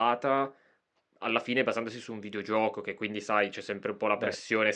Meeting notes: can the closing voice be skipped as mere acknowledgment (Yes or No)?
Yes